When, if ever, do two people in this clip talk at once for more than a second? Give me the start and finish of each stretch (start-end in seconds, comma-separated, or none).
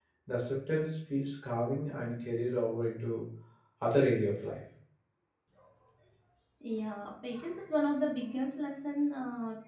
none